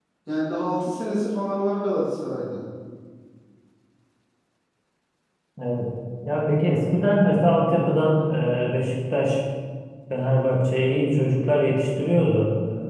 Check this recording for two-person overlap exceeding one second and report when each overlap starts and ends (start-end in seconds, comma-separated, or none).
none